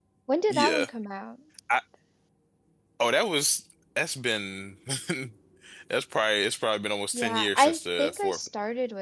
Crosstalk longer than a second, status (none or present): present